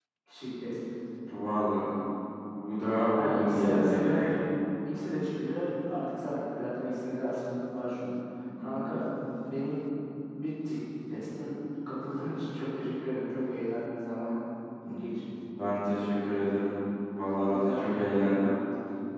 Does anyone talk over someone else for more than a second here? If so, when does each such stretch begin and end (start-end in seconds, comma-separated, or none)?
3.1-4.4